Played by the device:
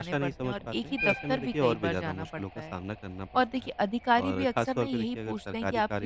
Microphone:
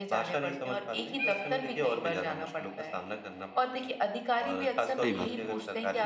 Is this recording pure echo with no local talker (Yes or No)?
No